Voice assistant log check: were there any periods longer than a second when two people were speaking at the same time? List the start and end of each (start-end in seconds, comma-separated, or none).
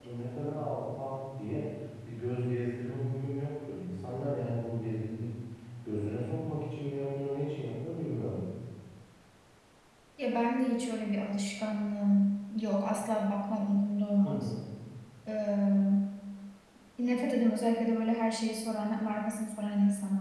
none